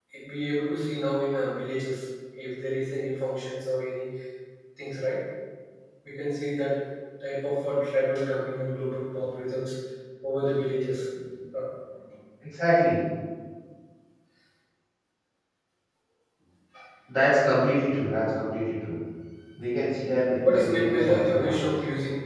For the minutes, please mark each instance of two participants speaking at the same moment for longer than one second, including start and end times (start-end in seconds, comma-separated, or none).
20.4-21.7